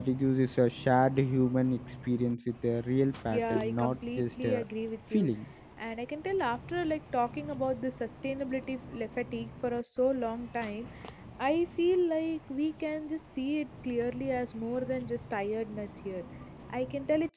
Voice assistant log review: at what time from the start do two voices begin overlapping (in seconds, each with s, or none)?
3.3 s